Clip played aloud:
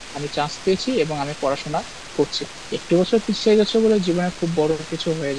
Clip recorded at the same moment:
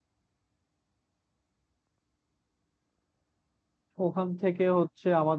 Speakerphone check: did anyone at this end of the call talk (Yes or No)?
Yes